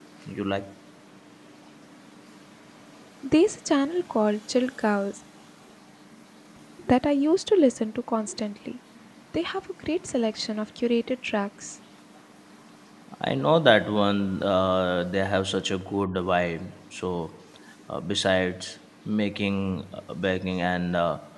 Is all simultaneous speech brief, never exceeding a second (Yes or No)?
Yes